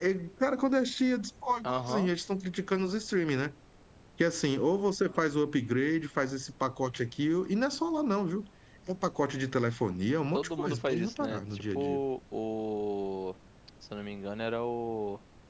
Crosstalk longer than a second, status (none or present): present